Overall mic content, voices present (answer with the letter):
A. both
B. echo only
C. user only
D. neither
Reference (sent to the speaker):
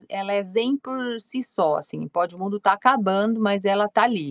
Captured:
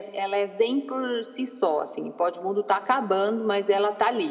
B